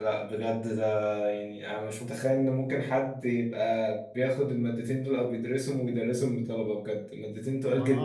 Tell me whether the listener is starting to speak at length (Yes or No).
Yes